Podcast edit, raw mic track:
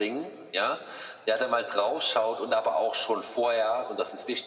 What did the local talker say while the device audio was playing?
none

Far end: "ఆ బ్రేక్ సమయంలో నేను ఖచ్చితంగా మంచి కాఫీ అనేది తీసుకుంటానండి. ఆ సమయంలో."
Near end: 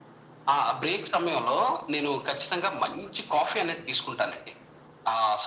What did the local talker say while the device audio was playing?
none

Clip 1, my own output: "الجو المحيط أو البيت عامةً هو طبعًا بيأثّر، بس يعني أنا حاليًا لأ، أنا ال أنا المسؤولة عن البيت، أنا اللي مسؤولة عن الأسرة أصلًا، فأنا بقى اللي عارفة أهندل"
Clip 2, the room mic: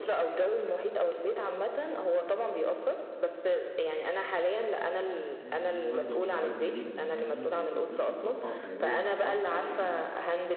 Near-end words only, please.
يعني دي وجبة متوازنة جدًا يعني وتدّيكِ طاقة وحيوية ونشاط على بقية اليوم.

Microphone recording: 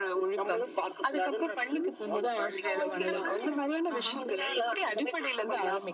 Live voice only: இப்போ சில குழந்தைகள் ஆஹா.

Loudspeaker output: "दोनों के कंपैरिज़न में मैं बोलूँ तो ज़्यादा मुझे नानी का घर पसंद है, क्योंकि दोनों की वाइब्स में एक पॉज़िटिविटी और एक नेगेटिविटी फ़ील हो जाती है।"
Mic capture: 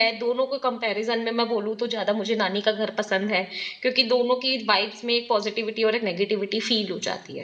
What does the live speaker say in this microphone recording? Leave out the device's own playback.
none

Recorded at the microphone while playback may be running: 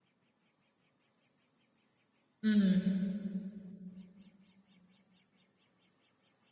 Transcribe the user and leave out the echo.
హ్మ్.

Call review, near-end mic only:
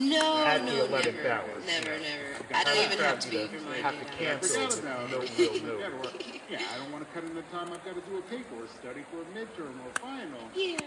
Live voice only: at the 11th hour, you know, it's, it's kind of crappy to have to cancel with no real notice.

